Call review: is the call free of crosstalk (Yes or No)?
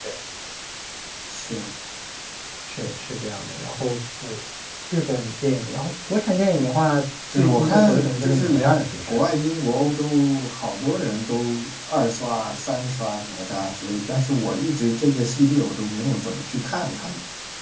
No